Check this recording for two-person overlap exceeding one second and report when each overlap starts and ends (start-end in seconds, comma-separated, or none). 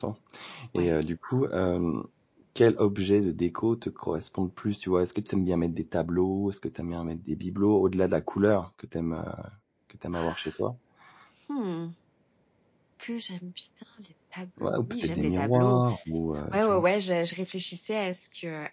14.6-15.8